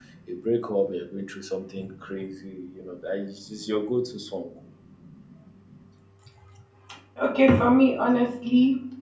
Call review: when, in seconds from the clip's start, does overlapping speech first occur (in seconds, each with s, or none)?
none